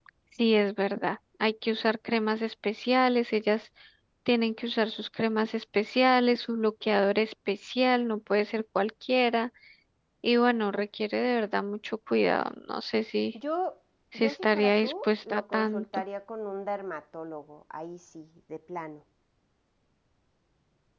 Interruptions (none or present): present